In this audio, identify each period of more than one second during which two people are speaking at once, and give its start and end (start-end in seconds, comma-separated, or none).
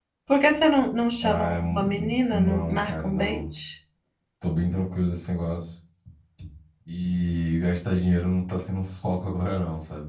1.2-3.4